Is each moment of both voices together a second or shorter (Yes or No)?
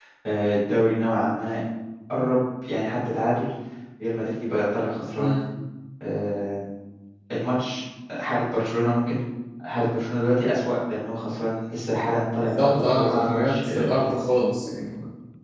No